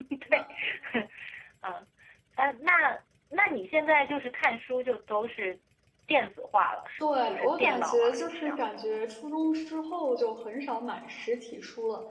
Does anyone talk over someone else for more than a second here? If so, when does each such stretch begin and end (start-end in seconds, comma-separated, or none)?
7.0-8.6